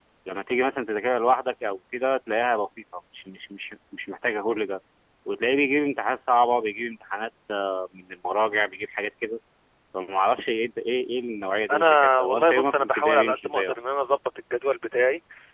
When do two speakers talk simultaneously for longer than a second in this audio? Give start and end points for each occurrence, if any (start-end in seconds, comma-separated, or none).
11.7-13.8